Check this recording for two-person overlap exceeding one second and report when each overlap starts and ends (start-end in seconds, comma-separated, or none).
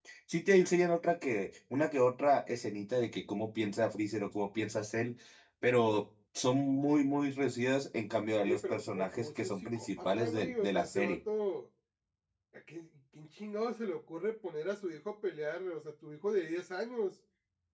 8.4-11.2